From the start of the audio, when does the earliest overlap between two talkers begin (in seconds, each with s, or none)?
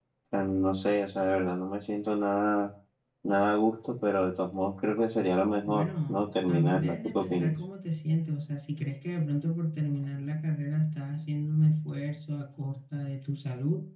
5.6 s